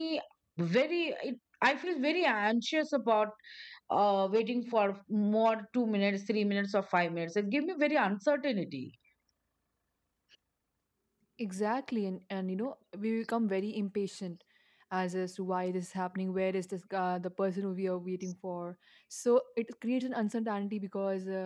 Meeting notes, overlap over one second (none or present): none